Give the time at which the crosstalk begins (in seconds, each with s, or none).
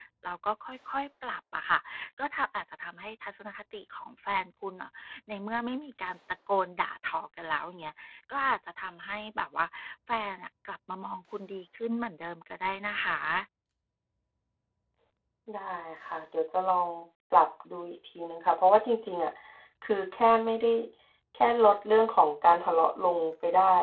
none